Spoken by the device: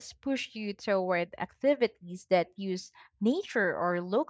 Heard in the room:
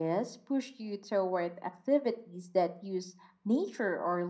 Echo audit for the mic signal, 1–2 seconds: echo only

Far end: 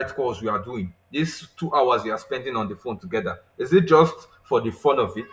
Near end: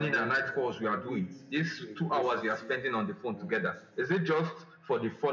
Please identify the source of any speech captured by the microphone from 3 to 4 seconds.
both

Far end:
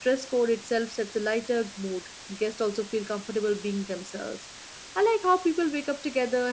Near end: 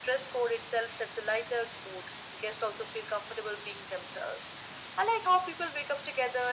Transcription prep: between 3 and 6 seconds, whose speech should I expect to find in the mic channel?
echo only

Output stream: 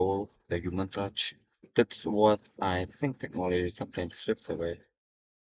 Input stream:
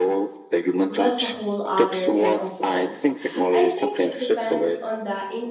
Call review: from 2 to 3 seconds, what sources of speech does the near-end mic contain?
both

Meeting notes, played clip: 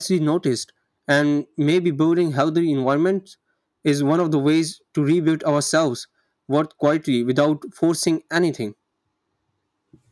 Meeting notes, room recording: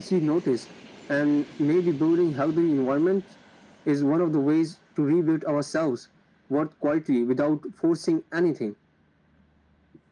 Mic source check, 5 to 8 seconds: echo only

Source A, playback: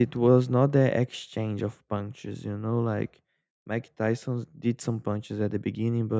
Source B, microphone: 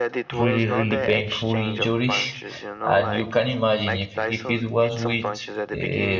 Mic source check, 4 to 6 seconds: both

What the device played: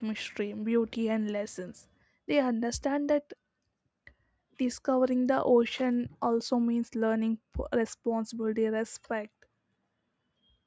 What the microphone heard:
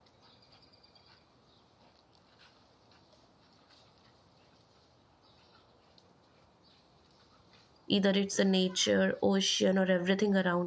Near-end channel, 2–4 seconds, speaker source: neither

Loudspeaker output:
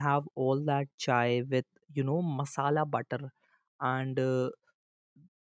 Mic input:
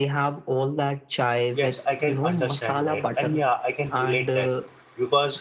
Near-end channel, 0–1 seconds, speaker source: echo only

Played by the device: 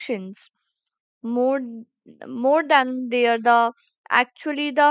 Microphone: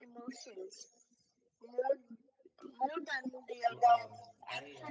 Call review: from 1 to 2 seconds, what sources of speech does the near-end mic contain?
echo only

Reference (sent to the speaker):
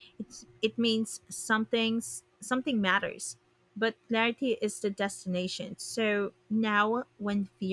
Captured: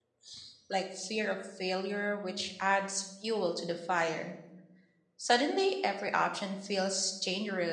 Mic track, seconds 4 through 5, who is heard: user only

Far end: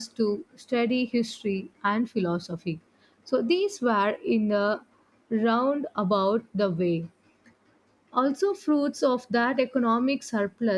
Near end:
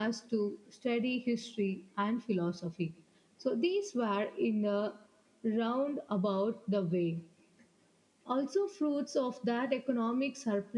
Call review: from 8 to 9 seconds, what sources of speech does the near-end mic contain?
echo only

